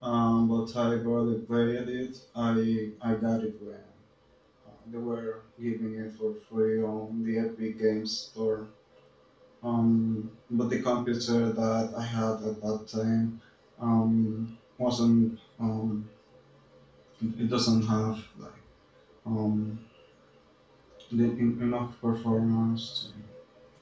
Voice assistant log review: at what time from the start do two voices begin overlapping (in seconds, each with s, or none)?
none